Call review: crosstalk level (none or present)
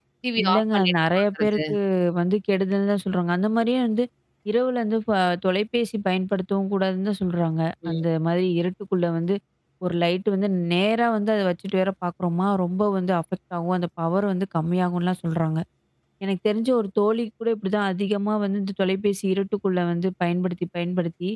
present